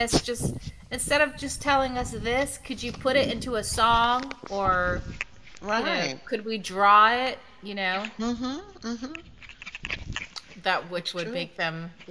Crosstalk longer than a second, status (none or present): none